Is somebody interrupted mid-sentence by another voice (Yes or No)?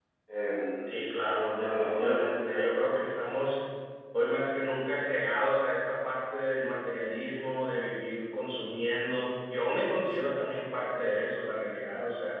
Yes